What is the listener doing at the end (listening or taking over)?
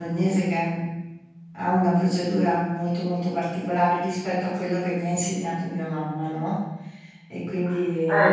taking over